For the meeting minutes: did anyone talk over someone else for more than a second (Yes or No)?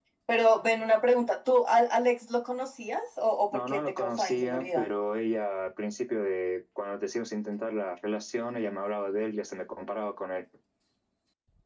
Yes